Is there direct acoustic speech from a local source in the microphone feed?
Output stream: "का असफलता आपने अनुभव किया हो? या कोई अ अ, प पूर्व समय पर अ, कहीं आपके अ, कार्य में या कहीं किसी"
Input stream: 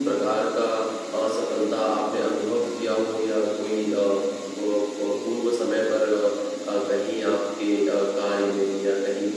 No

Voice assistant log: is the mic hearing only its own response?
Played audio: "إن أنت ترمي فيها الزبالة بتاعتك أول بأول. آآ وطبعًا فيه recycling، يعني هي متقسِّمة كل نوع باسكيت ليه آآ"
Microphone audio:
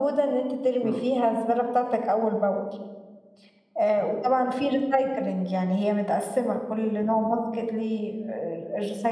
No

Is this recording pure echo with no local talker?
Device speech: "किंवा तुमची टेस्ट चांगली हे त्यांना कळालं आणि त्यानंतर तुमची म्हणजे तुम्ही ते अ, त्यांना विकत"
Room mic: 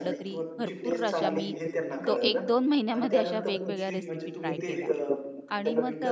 No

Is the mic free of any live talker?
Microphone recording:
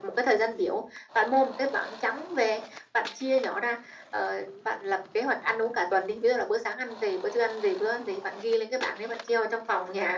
Yes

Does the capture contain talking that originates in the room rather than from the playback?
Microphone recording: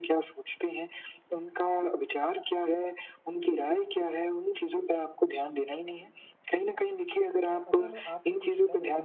Yes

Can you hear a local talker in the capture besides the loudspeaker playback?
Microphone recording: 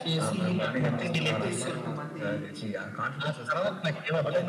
Yes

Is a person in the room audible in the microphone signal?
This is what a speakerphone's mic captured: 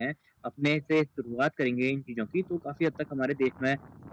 Yes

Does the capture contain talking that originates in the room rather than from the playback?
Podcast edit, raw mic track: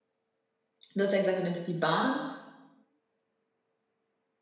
Yes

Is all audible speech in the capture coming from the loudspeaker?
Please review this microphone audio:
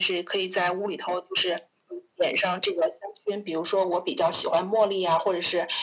Yes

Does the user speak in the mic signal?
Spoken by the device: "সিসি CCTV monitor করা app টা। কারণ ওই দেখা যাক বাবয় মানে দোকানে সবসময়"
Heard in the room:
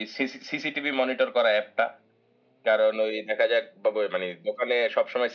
No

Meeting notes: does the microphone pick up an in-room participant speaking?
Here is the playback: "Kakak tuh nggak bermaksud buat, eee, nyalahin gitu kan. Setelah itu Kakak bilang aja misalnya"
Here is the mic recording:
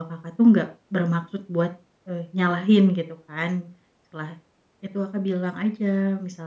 No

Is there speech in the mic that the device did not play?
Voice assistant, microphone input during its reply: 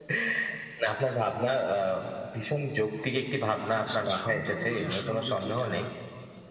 Yes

